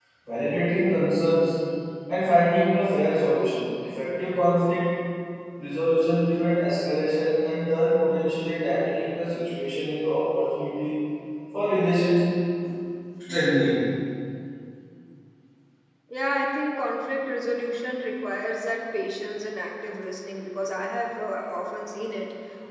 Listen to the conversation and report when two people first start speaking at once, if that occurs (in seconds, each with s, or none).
none